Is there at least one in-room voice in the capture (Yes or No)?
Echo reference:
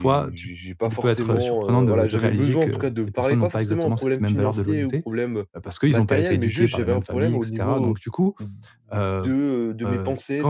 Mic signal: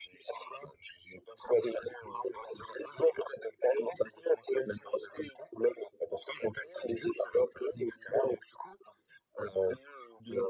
No